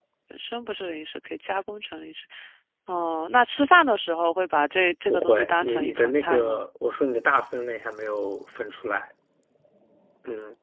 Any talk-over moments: Yes, from 5.1 s

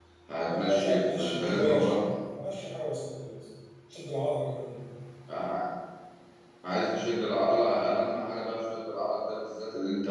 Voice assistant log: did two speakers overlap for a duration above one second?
Yes, from 0.6 s

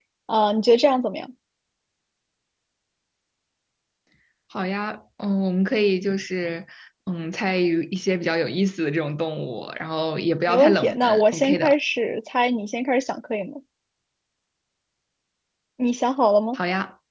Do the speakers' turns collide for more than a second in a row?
Yes, from 10.5 s

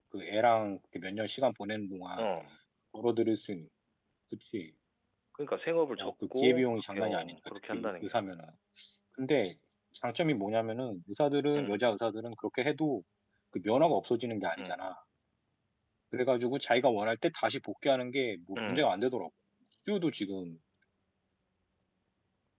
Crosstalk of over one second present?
Yes, from 6.0 s

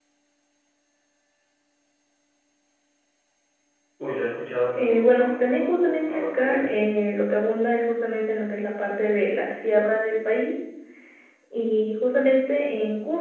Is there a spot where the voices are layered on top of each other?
Yes, from 4.7 s

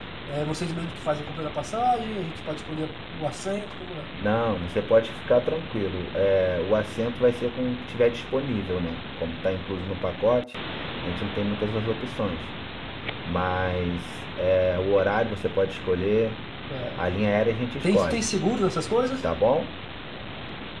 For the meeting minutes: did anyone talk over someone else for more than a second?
No

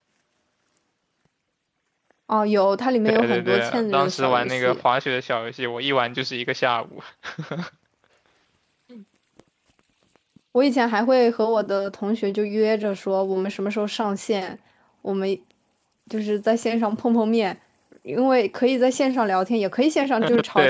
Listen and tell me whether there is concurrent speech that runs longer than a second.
Yes, from 3.1 s

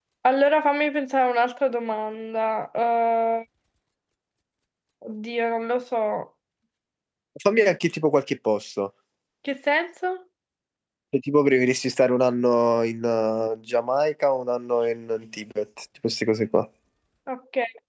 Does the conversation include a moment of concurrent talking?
No

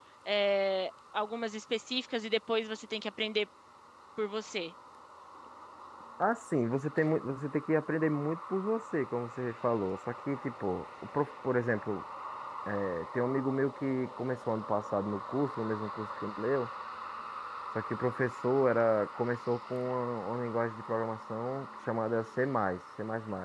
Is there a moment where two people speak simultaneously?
No

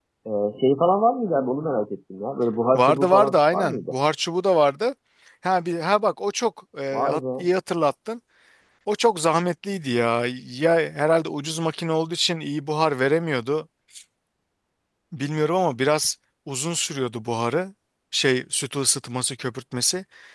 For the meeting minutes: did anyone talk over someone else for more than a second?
Yes, from 2.7 s

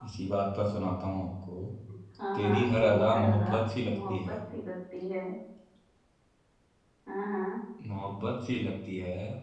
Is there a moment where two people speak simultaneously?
Yes, from 2.3 s

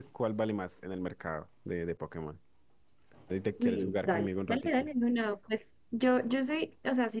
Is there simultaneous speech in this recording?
Yes, from 3.6 s

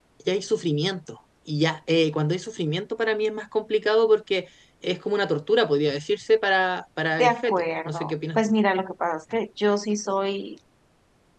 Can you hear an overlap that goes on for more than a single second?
Yes, from 7.2 s

